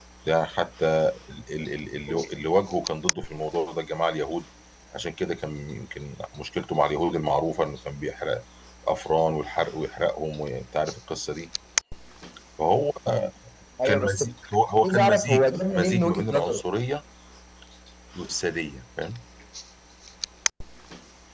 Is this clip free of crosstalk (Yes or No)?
No